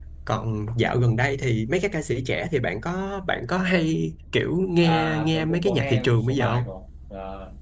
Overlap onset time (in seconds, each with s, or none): 4.8 s